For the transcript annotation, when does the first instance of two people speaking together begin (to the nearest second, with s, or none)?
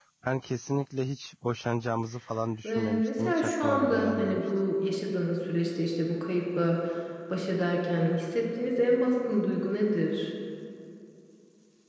3 s